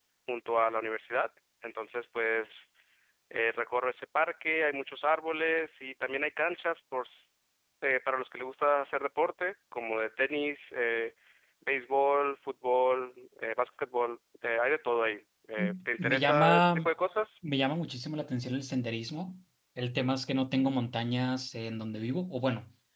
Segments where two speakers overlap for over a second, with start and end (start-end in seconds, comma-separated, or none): 15.6-16.9